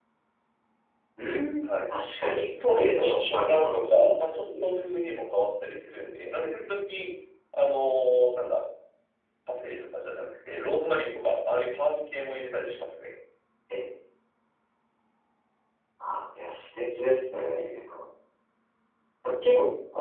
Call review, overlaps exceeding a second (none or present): present